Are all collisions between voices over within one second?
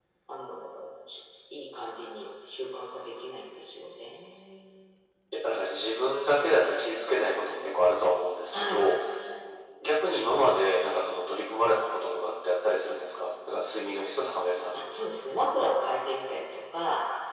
Yes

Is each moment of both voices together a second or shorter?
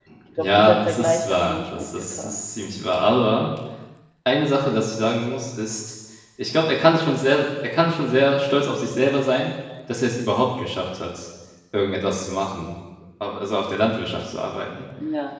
No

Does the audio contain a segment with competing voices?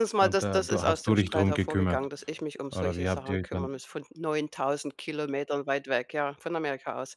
Yes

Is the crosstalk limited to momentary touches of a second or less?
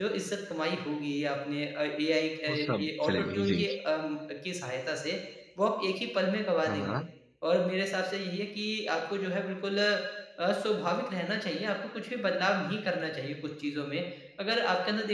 No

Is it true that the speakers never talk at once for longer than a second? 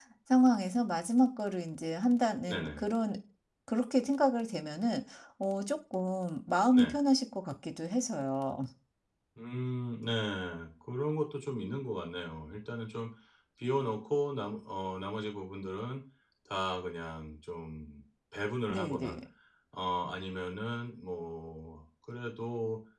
Yes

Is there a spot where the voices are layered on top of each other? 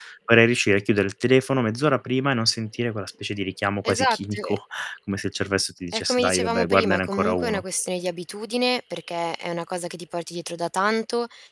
Yes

